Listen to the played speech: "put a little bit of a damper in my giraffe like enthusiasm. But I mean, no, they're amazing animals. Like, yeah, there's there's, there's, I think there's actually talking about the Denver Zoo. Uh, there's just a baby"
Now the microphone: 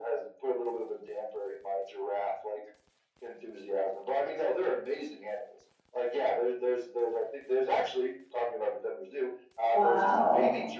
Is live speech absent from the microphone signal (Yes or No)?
No